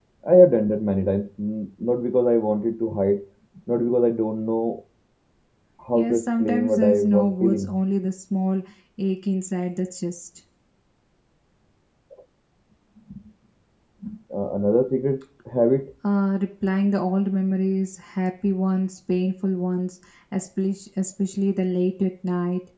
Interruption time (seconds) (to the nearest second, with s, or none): 6 s